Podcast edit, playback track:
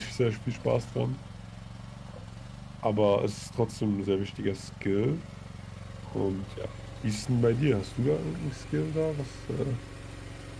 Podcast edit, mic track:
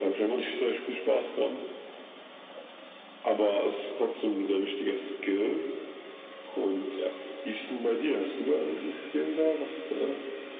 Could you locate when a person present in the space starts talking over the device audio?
none

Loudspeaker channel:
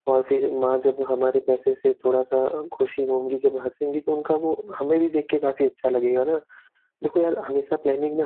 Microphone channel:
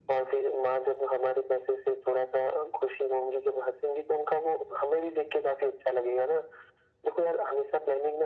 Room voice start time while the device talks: none

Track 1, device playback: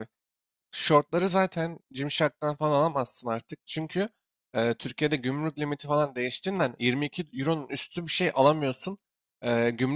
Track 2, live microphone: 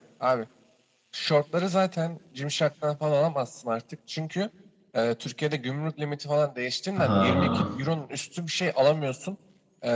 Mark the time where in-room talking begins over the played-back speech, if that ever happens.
7 s

